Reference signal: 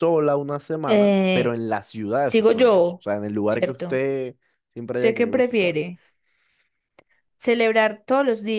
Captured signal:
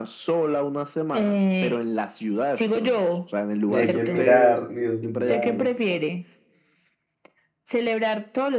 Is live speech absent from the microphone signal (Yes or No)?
No